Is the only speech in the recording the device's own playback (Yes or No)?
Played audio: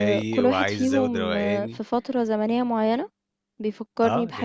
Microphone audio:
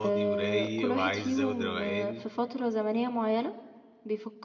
Yes